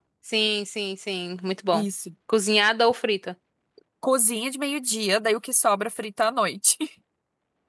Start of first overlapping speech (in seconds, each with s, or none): none